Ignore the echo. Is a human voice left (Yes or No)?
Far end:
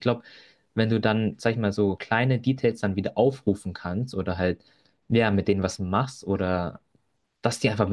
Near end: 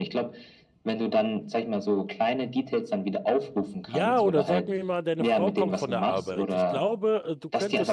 Yes